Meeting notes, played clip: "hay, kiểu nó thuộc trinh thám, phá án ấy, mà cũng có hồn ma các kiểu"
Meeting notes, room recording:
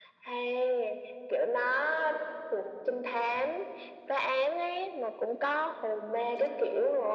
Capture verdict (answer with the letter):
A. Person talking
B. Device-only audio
B